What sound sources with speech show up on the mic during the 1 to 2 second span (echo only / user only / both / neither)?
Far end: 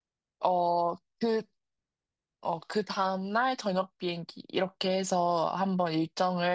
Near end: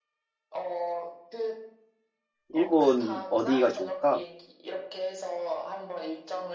echo only